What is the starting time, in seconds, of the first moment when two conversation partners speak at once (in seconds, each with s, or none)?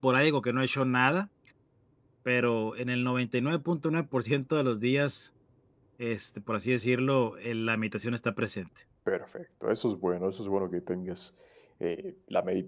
none